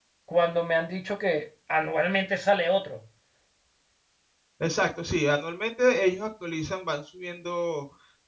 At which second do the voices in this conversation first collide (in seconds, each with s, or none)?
none